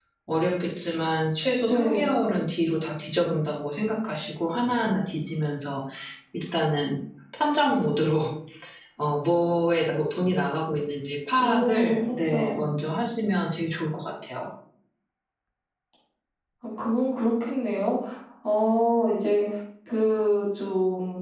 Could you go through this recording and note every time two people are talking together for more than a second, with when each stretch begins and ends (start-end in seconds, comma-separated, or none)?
11.3-12.7